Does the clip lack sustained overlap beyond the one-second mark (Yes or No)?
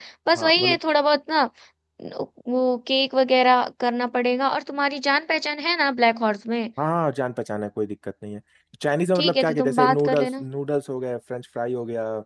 No